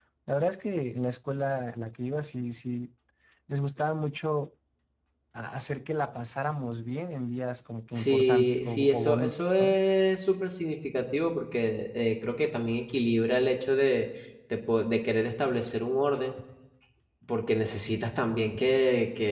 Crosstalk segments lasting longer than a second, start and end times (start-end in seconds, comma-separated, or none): 7.9-9.8